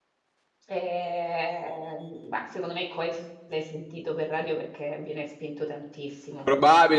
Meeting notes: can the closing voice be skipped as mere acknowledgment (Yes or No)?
No